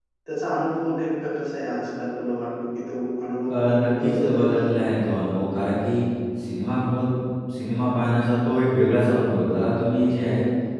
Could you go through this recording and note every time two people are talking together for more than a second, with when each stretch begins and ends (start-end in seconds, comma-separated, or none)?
3.5-4.7